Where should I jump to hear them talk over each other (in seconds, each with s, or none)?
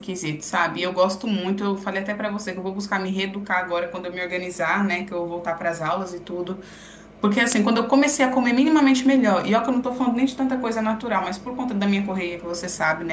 none